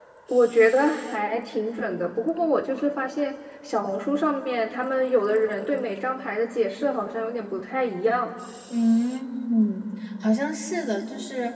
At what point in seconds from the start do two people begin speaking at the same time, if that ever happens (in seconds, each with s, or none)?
none